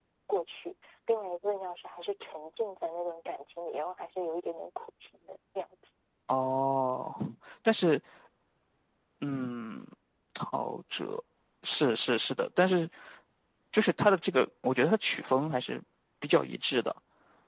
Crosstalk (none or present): none